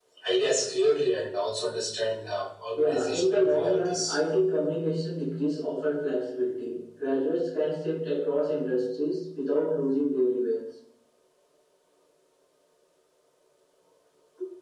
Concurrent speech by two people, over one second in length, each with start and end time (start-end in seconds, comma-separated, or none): 2.8-4.2